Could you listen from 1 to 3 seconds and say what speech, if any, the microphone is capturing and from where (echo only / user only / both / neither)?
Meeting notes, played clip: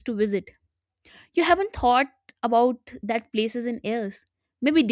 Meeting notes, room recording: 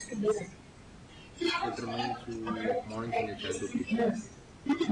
both